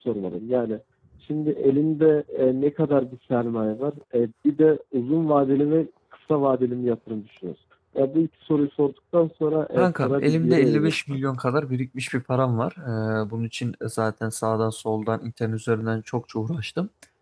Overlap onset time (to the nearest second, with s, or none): 10 s